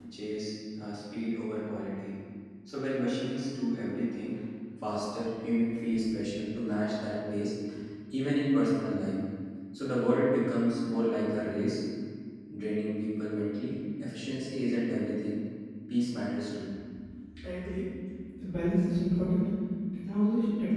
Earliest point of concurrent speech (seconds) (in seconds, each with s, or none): none